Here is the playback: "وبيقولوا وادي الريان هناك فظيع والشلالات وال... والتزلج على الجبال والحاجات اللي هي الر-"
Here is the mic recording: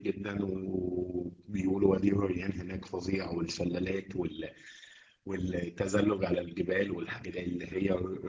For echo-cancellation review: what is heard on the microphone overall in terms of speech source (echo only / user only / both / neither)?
echo only